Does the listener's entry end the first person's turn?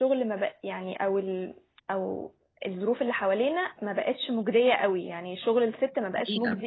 No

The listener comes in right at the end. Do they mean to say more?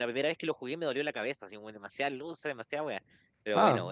Yes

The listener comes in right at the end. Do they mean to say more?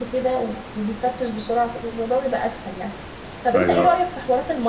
No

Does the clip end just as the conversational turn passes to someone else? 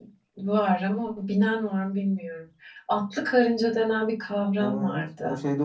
Yes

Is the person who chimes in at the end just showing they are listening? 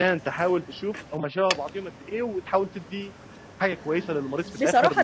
No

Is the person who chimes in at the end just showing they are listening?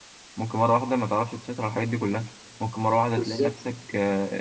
Yes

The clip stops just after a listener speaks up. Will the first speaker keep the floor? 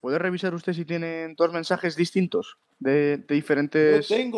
No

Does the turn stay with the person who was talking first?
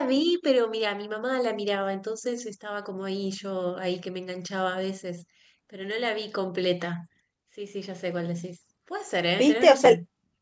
No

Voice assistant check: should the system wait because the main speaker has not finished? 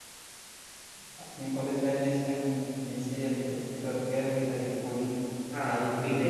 No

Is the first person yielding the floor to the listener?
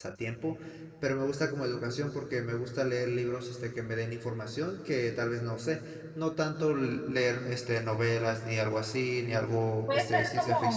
Yes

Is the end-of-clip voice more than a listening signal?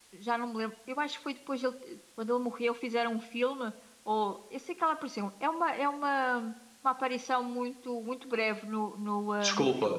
Yes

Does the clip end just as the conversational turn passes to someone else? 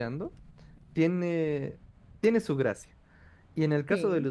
No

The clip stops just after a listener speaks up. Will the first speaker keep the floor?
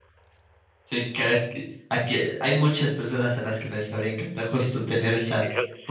No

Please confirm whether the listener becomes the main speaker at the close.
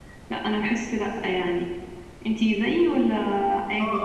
Yes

